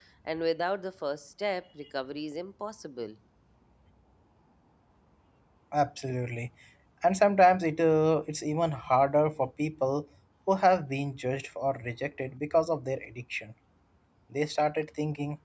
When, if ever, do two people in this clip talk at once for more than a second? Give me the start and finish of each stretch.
none

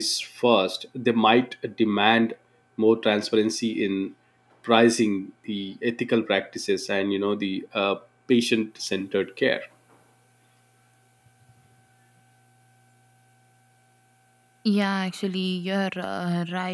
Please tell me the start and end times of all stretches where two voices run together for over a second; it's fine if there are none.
none

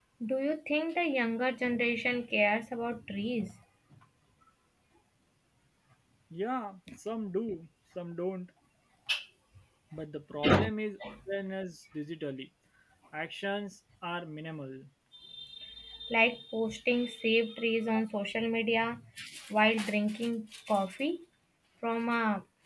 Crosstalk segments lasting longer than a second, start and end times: none

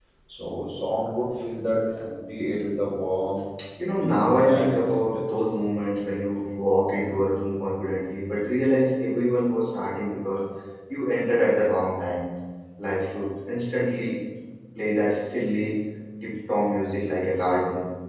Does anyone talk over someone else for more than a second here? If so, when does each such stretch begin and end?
4.0-5.5

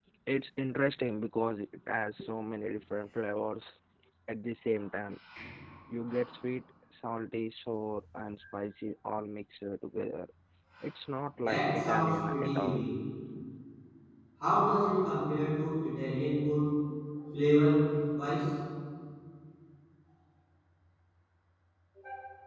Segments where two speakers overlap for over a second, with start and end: 11.3-12.8

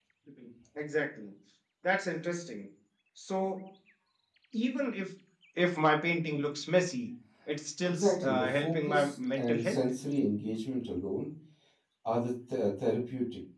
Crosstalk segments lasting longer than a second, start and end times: 7.8-9.8

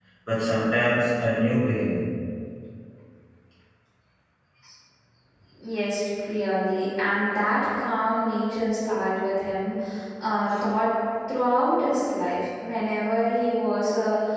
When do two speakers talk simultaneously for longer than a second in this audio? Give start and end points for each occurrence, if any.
none

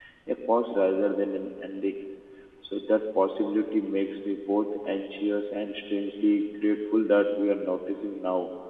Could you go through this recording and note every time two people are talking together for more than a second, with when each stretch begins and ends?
none

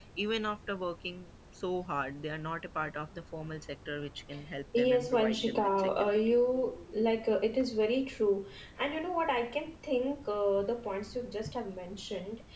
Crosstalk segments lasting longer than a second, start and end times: 4.8-6.2

